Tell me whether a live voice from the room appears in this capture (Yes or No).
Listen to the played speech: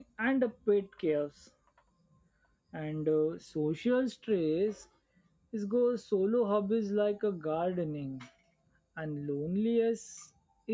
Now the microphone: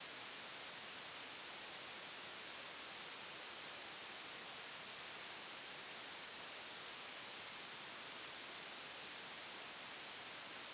No